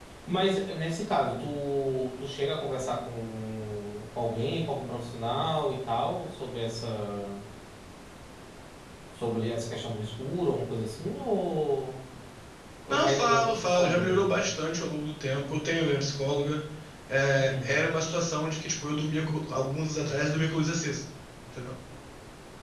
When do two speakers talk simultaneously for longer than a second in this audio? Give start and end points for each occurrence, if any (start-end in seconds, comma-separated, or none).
12.9-14.3